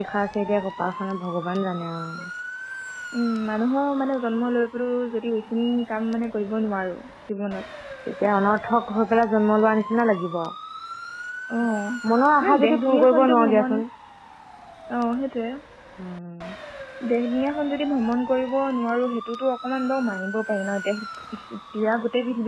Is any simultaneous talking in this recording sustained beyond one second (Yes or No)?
Yes